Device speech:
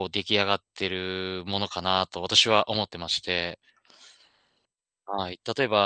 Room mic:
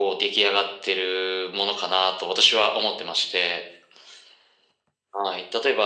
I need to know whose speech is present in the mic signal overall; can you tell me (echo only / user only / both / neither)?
echo only